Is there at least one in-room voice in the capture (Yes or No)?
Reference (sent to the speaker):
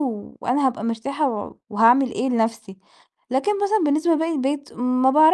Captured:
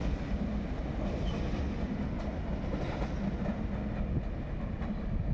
No